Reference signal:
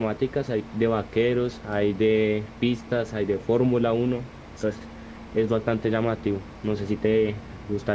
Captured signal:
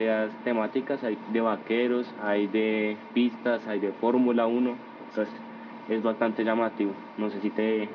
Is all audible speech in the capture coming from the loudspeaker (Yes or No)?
Yes